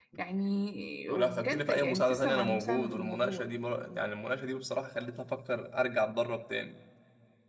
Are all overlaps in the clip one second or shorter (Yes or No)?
No